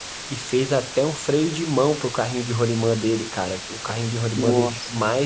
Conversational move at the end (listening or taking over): listening